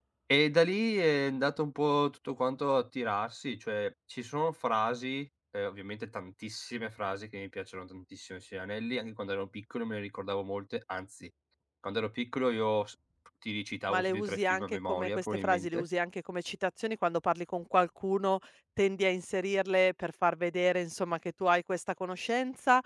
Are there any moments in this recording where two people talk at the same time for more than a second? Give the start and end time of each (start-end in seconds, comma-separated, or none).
13.9-15.8